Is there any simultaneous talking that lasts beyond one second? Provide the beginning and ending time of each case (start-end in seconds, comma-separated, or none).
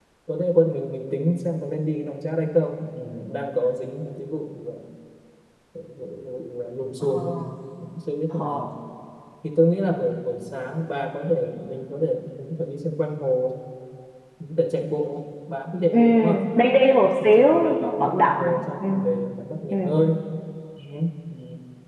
17.2-18.9